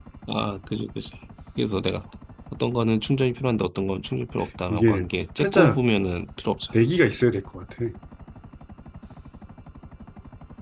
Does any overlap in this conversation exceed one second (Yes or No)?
No